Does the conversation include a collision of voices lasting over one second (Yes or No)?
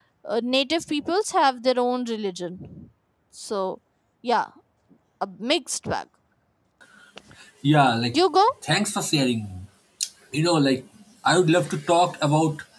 No